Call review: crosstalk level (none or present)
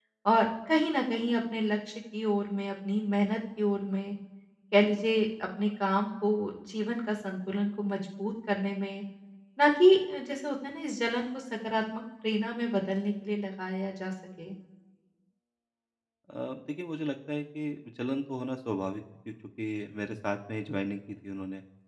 none